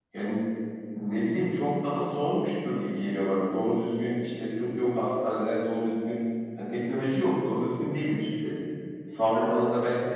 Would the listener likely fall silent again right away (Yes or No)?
Yes